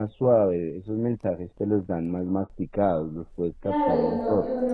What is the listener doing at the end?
taking over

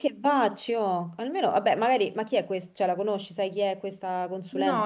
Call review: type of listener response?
taking over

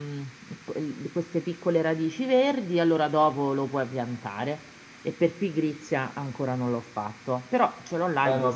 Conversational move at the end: taking over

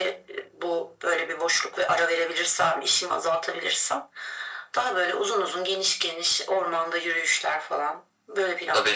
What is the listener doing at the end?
taking over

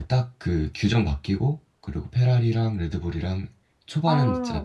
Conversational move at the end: taking over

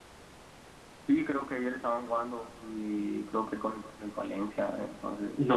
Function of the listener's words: taking over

